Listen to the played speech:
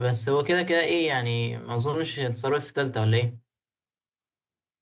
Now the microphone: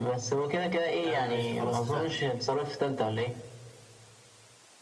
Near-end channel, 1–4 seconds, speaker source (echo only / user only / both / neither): both